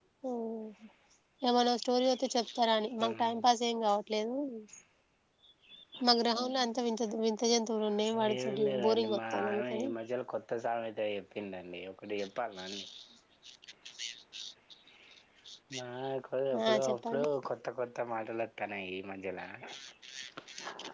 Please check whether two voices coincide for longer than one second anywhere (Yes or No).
Yes